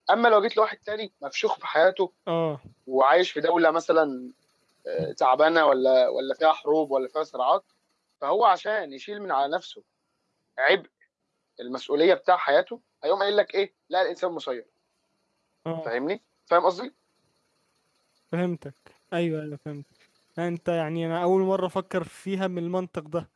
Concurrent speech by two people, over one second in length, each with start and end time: none

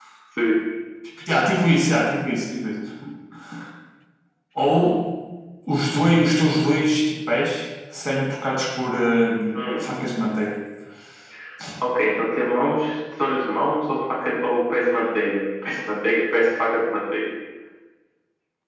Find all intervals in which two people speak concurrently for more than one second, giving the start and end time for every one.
none

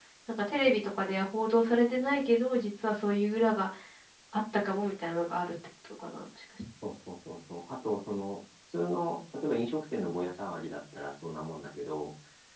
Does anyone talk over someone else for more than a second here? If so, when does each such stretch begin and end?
none

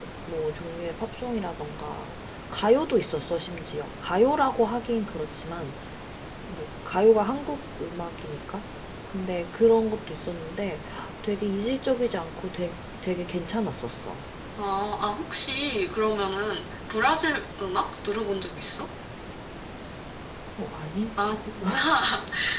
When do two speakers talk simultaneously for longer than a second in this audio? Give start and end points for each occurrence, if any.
none

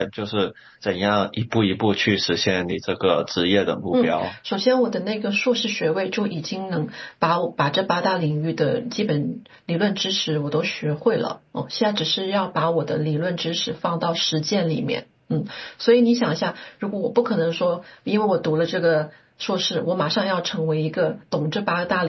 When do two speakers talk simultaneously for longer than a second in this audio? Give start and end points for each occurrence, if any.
none

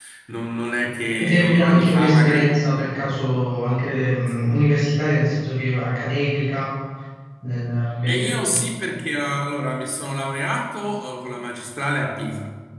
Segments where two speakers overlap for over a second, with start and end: 1.2-2.5

